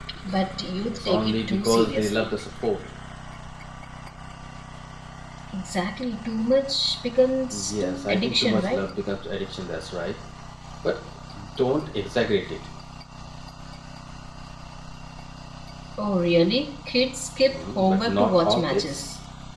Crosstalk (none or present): present